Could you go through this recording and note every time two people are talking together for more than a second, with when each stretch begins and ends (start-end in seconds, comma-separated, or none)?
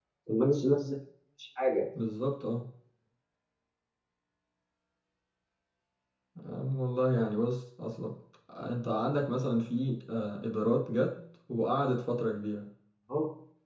none